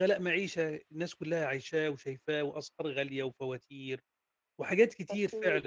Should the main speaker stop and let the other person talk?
No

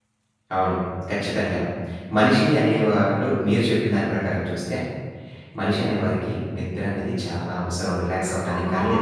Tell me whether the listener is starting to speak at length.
No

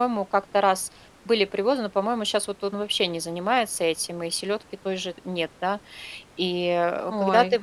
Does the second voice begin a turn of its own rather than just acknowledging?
No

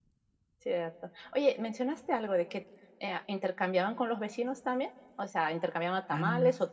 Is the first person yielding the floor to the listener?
No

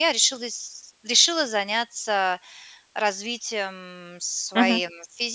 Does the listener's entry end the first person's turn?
No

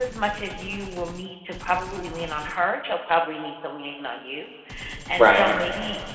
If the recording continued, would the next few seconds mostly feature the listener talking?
No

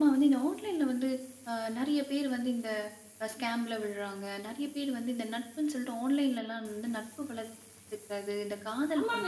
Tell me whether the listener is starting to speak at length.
Yes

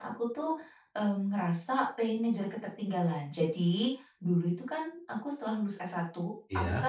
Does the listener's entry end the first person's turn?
No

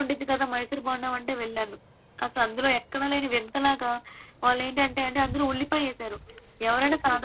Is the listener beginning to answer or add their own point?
No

